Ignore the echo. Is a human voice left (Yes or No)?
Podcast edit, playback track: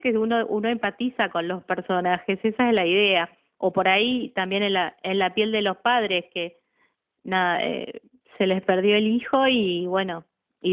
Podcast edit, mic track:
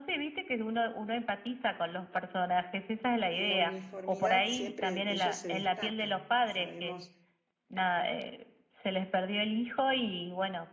Yes